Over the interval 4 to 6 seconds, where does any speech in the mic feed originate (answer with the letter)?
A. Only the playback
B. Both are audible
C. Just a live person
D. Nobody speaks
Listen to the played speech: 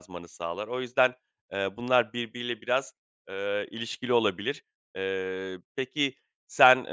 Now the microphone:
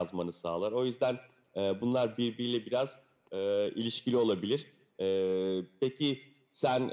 A